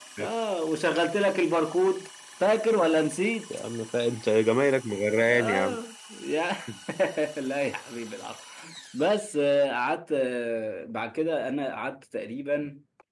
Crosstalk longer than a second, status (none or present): none